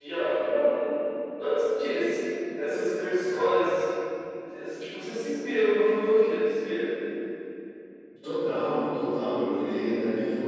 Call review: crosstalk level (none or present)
none